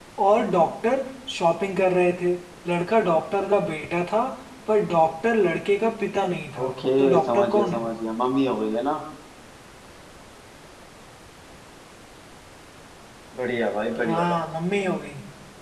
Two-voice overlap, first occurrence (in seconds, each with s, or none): 6.6 s